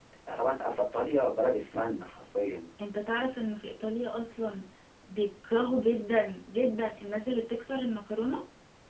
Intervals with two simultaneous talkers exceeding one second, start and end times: none

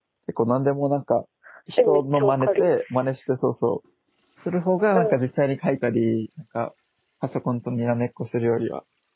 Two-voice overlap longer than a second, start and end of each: 1.8-3.1

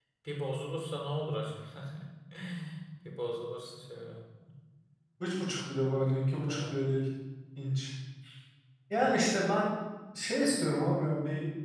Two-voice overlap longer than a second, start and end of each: none

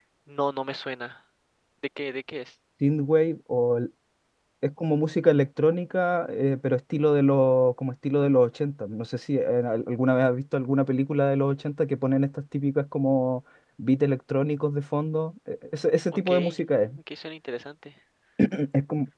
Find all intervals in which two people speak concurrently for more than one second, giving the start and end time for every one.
none

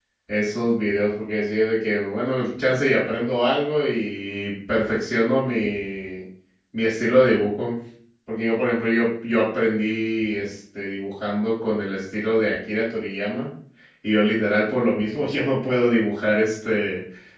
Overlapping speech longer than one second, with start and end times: none

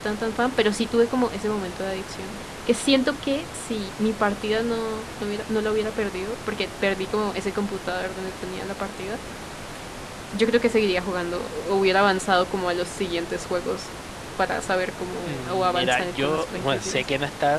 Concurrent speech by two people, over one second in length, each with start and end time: 15.3-17.0

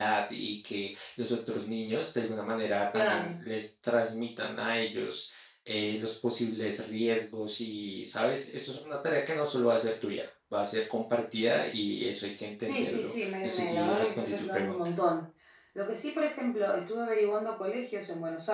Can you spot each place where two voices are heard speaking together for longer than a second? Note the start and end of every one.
12.6-14.8

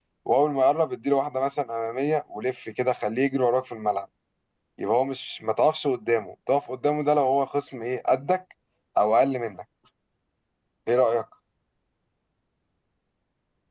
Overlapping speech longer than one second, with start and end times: none

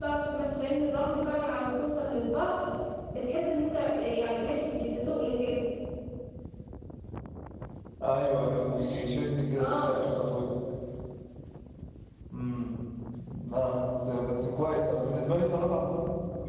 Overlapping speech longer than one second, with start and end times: none

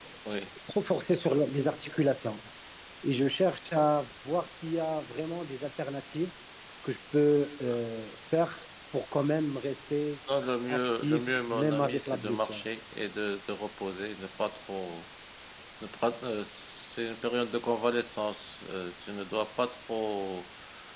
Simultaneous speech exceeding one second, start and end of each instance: 10.7-12.6

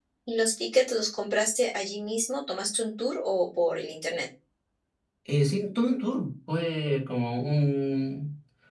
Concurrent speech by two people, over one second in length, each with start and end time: none

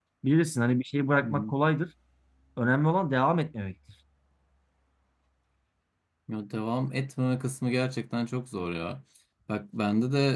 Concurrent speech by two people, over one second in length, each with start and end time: none

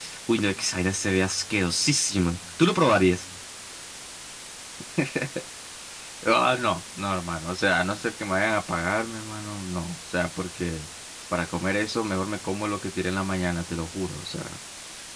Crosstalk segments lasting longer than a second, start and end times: none

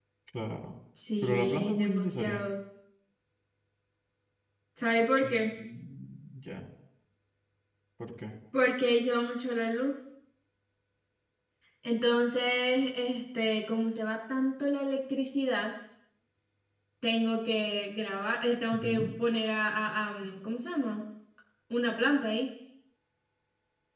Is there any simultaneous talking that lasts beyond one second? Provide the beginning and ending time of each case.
1.2-2.4

